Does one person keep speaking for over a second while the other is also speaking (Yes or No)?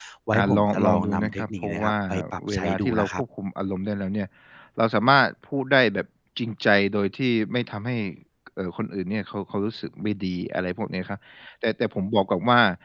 Yes